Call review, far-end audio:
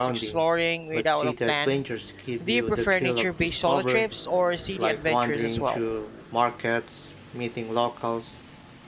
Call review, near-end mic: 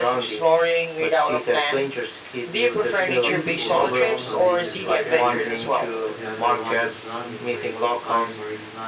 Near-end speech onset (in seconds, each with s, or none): 3.0 s